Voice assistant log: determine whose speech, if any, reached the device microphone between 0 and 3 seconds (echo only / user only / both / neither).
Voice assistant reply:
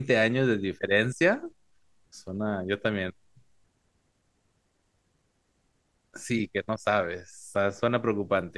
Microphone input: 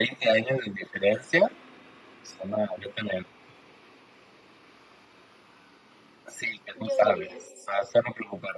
echo only